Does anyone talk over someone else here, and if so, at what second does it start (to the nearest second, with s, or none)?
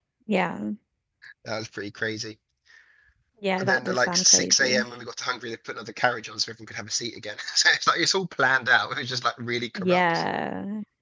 4 s